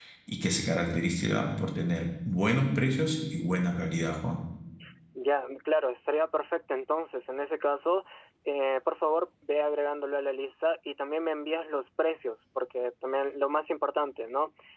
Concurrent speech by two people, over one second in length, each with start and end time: none

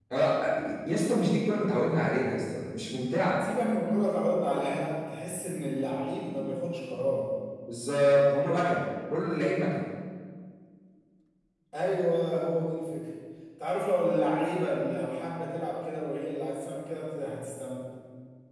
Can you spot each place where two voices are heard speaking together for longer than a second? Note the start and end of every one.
none

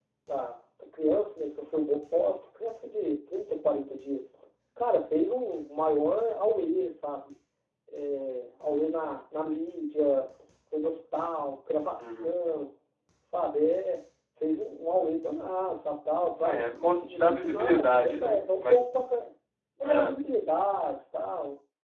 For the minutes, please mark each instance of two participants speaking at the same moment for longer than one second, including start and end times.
16.4-18.8

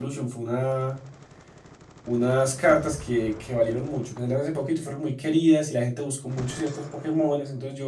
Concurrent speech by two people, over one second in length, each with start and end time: none

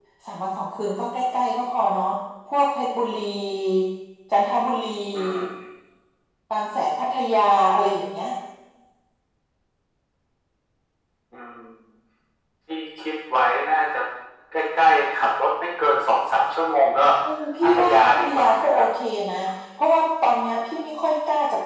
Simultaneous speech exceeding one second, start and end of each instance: 17.6-18.9

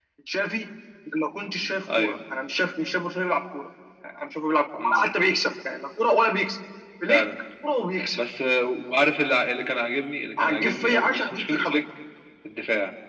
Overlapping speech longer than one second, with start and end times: 10.4-11.8

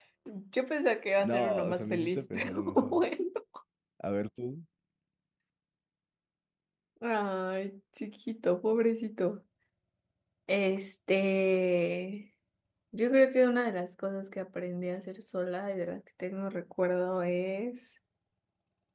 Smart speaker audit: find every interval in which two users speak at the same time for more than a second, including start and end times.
1.2-3.0

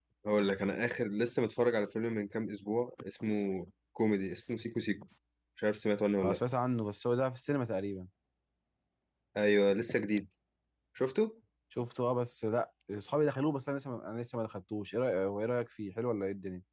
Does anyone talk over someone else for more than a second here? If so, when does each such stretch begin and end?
none

